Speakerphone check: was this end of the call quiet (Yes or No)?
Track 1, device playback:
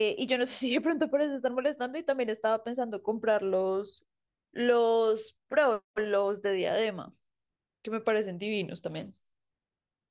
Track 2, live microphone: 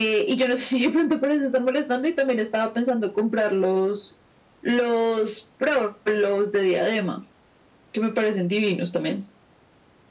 Yes